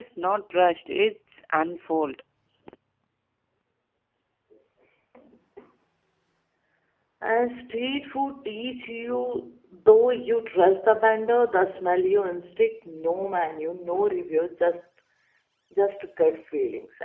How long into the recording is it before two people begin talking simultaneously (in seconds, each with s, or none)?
none